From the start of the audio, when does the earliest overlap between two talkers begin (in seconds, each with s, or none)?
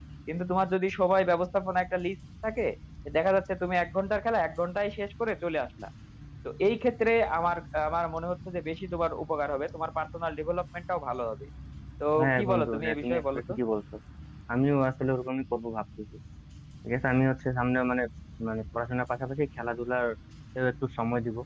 12.2 s